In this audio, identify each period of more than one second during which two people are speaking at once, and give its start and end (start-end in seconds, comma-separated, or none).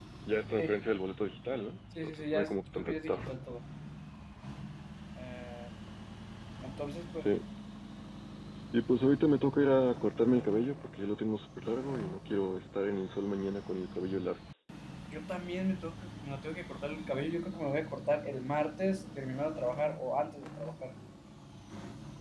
2.0-3.3